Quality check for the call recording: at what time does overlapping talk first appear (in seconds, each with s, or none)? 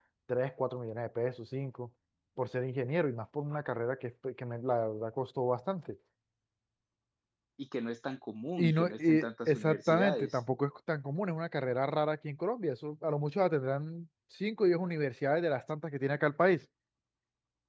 8.6 s